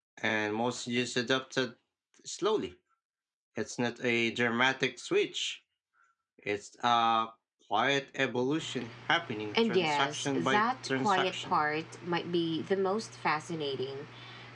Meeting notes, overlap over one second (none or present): present